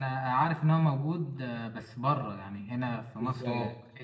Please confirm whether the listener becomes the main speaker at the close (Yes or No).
Yes